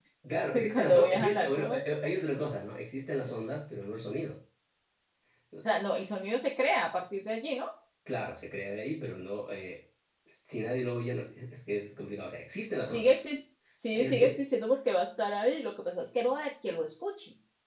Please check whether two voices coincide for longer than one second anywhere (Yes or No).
Yes